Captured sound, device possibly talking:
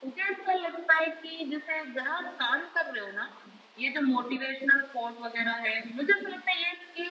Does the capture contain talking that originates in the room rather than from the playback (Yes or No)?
No